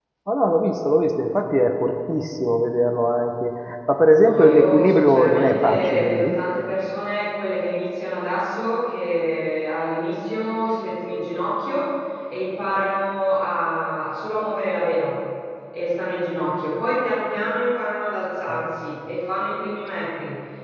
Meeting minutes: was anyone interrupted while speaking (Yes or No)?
Yes